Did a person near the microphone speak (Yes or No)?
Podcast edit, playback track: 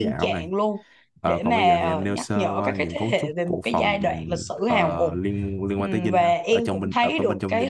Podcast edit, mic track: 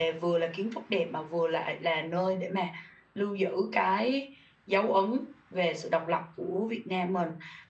Yes